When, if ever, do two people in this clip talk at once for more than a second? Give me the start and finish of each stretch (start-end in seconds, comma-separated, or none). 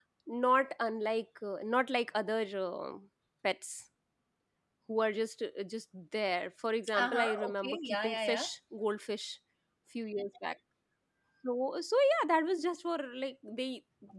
7.0-8.5